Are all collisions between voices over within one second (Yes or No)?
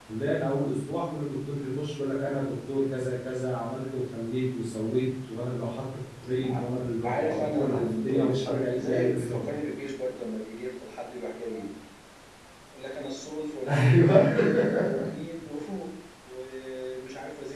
No